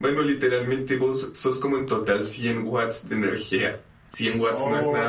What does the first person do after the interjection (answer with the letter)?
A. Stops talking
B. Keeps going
A